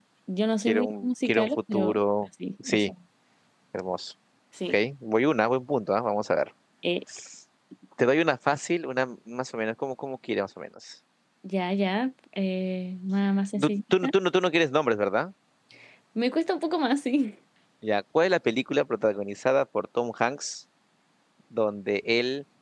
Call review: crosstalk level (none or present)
present